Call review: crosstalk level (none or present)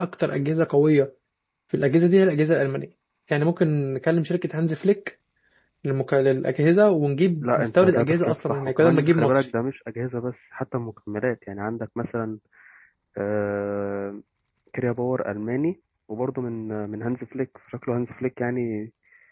present